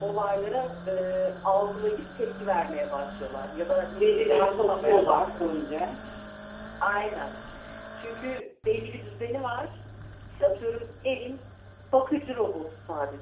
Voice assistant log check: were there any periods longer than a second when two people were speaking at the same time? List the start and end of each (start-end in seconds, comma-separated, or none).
4.0-5.2